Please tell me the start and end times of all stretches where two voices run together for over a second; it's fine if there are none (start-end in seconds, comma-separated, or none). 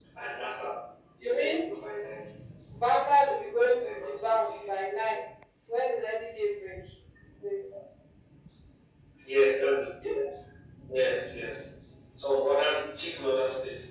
3.2-4.8